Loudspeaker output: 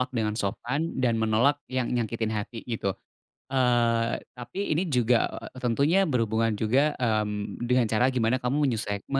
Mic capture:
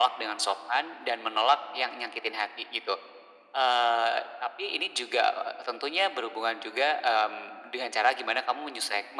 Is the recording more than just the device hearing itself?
No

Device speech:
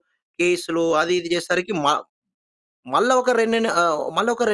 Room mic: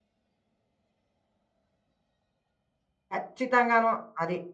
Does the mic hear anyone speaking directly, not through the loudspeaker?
Yes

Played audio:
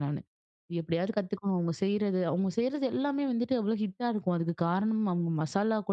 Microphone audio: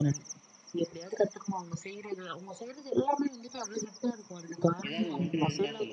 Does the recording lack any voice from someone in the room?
No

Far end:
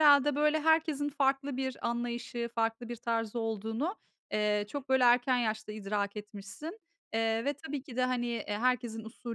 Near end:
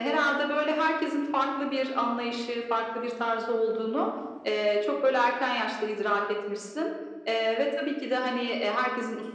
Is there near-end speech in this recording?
No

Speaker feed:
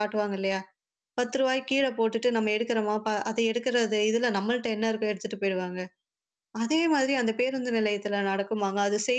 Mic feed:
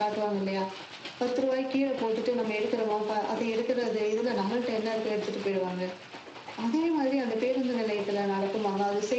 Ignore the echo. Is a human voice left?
No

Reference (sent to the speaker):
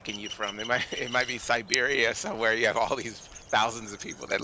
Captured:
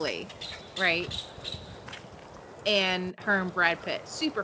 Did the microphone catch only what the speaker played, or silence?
No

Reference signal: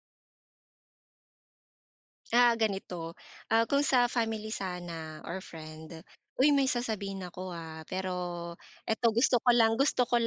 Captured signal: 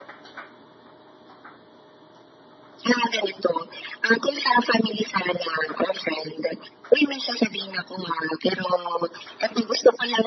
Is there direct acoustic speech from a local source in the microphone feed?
No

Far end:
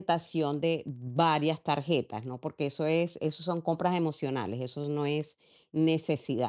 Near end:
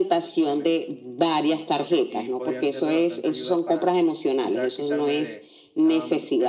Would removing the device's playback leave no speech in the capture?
No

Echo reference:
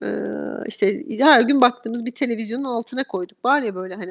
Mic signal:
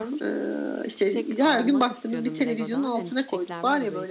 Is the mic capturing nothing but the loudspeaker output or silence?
No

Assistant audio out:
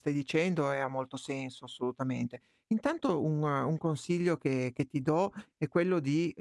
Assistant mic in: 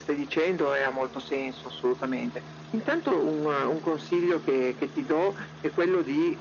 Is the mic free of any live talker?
Yes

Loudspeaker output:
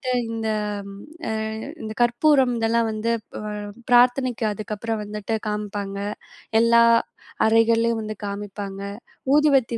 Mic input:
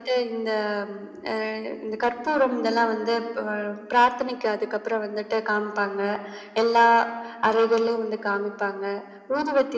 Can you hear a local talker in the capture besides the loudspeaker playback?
No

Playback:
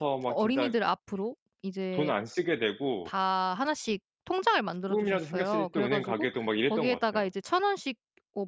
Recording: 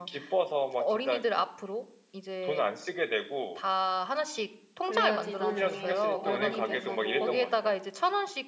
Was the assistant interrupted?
Yes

